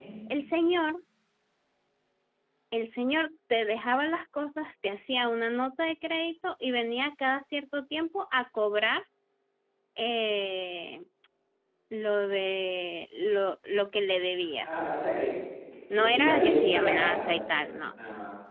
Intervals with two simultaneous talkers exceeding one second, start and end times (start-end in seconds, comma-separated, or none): 15.9-17.9